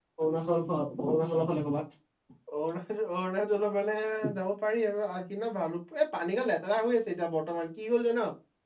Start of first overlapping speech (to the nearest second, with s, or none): none